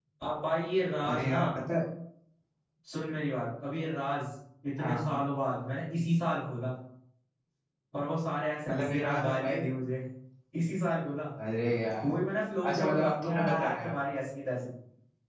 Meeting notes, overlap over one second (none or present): present